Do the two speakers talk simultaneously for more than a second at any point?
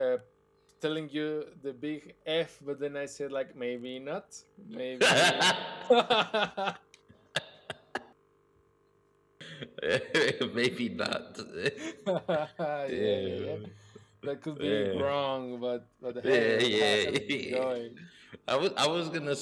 Yes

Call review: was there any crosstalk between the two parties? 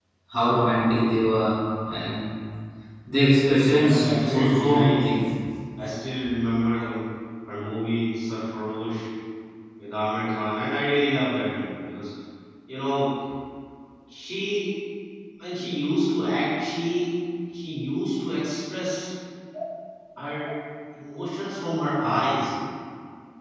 Yes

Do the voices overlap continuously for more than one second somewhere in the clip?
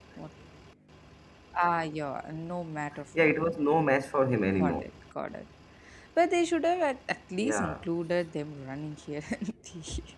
No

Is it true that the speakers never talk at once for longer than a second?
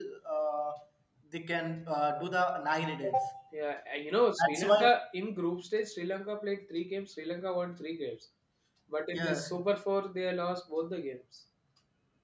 Yes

